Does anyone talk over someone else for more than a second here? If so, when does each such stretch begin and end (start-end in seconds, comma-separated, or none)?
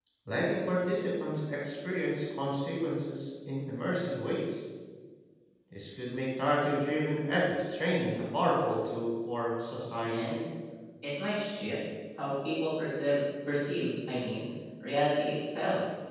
none